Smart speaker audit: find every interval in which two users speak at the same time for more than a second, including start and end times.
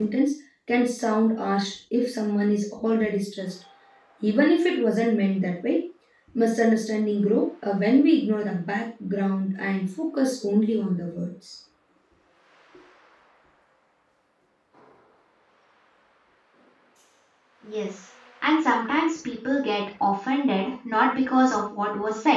none

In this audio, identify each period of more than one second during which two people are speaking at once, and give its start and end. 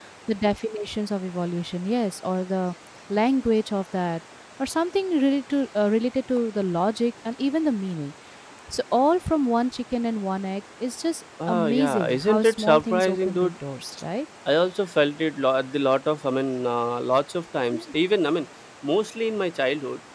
11.5-13.5

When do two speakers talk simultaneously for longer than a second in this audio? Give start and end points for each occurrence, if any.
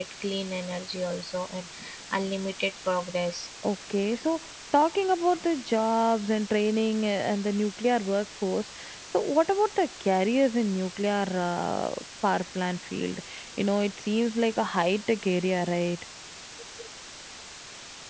none

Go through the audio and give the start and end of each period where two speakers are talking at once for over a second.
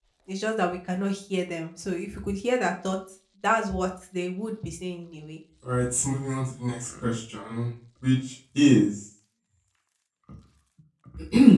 none

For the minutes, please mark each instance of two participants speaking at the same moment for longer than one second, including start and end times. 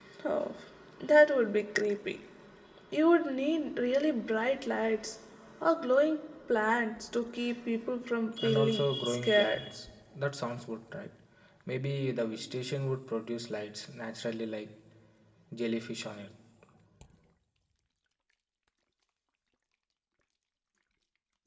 8.4-9.6

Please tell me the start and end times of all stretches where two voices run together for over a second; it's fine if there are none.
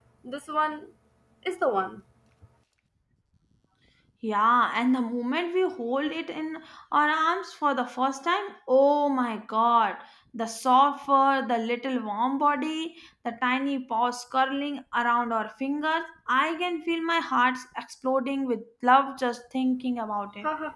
none

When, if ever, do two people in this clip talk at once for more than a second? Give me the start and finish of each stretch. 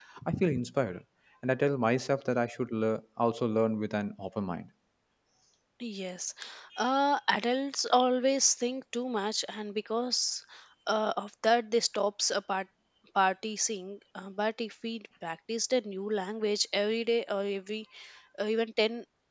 none

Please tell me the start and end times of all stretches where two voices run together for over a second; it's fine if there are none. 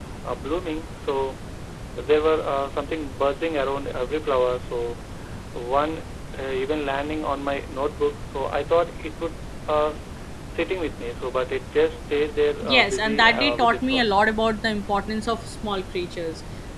12.6-14.1

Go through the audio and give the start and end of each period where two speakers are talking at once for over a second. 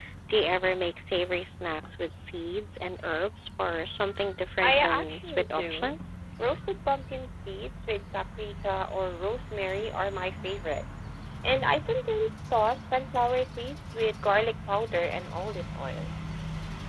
4.6-5.9

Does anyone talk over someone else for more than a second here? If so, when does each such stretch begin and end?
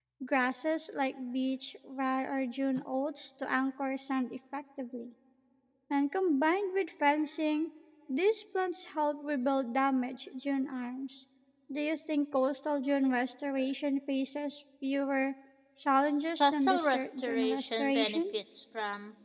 16.4-18.2

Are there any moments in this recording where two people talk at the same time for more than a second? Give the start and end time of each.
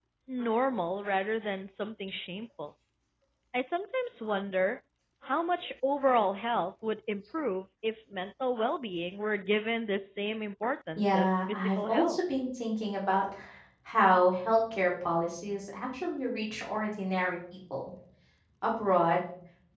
11.0-12.2

